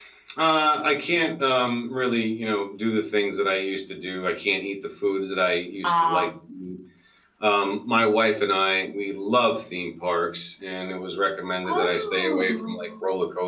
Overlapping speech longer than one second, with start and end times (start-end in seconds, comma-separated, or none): 11.7-12.9